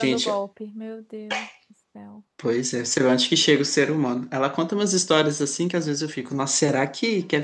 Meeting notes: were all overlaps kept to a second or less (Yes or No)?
Yes